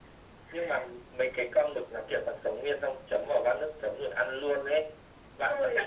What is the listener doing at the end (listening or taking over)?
taking over